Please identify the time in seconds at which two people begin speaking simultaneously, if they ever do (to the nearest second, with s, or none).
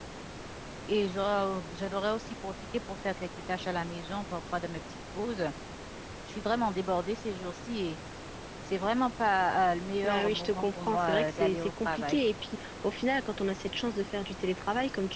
10 s